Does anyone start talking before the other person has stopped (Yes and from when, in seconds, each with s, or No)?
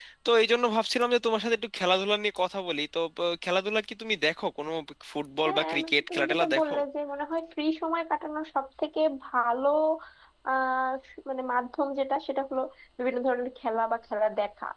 Yes, from 5.4 s